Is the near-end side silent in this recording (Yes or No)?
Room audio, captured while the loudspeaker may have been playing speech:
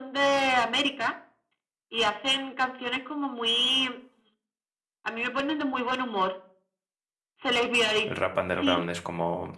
No